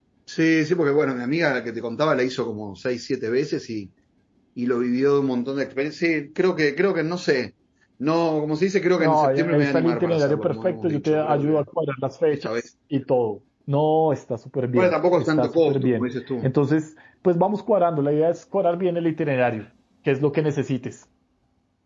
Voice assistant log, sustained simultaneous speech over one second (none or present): present